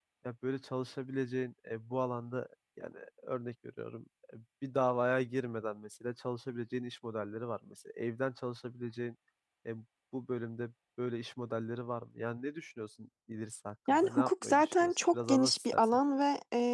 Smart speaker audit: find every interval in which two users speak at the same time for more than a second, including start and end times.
13.9-16.0

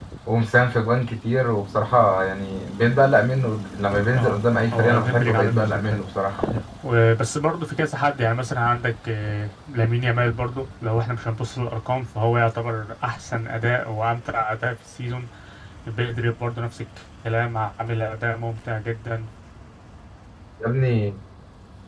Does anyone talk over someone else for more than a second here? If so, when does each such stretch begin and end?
4.2-6.0

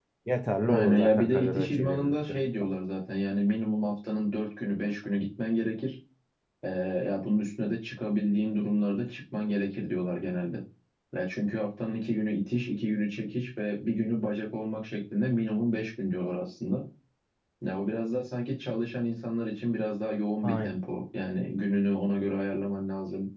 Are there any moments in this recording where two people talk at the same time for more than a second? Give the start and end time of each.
0.7-2.4

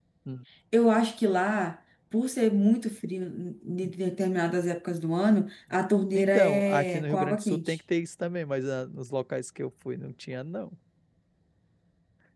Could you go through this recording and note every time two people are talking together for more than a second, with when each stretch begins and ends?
6.1-7.8

